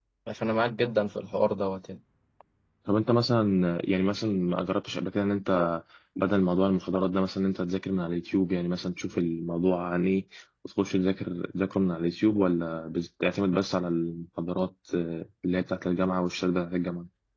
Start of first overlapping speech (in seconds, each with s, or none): none